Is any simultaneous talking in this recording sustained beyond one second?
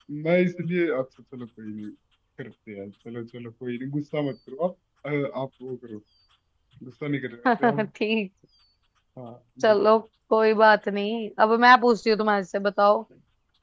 No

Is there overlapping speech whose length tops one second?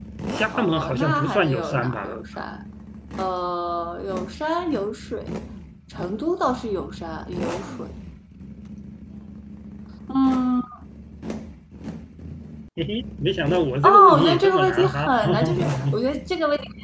Yes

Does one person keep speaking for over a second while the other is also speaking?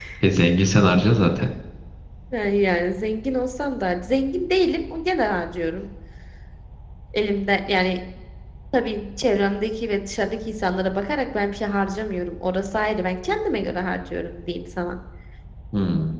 No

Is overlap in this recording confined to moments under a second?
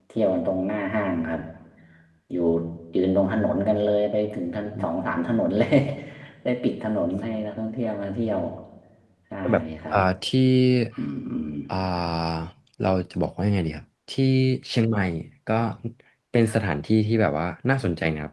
Yes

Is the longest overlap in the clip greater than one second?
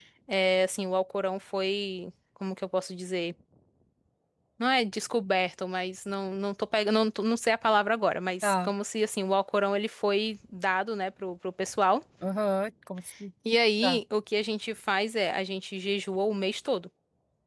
No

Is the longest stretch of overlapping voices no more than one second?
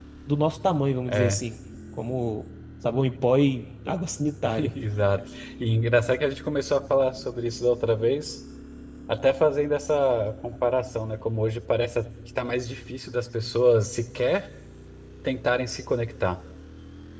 Yes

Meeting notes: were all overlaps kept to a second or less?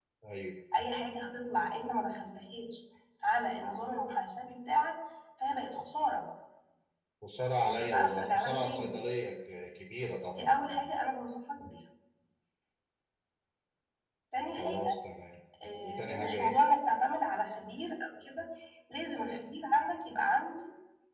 No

